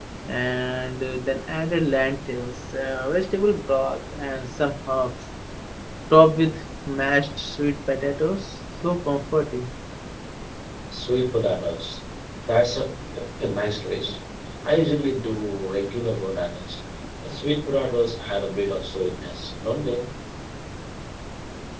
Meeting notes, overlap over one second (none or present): none